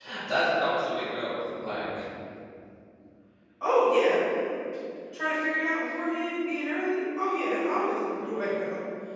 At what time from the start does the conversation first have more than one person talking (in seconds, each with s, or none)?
none